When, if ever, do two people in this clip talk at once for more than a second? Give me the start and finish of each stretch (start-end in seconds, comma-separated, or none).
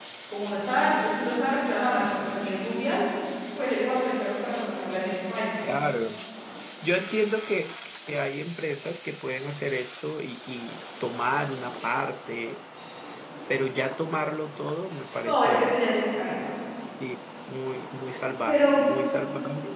none